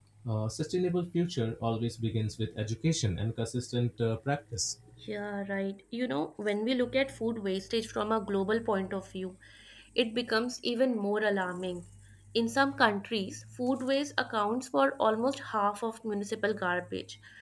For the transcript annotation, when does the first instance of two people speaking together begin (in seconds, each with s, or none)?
none